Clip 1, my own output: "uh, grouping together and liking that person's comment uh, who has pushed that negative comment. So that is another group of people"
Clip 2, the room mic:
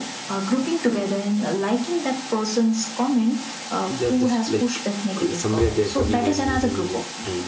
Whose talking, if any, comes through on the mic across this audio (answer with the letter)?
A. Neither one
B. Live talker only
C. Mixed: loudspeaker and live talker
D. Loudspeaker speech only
C